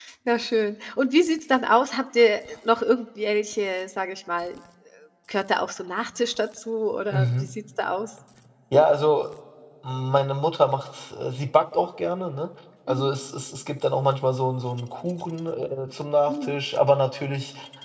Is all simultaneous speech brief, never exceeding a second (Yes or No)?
Yes